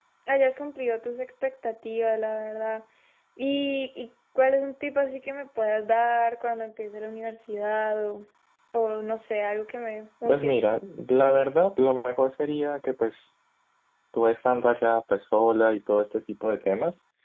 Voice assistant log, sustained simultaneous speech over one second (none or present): none